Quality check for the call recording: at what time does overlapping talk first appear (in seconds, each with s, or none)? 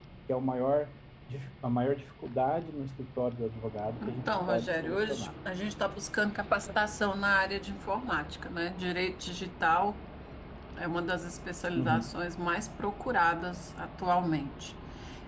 4.1 s